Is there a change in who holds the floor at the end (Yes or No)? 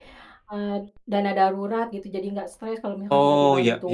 Yes